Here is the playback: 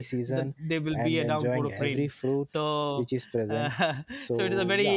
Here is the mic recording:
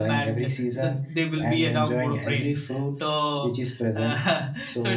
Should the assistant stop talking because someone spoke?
No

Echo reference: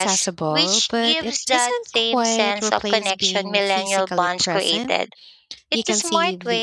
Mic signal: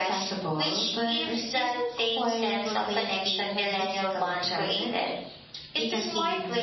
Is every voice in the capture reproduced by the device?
Yes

